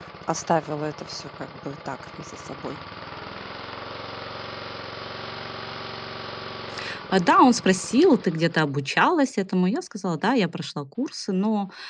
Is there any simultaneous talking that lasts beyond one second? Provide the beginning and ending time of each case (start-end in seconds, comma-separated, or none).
none